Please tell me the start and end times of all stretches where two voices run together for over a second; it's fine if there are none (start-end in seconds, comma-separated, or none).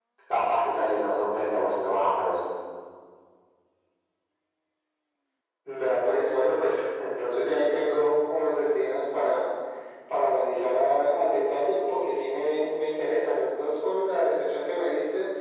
none